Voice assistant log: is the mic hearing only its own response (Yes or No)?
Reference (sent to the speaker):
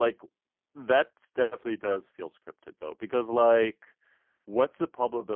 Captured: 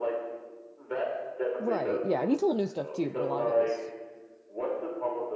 No